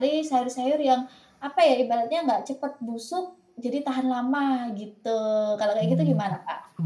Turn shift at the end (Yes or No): Yes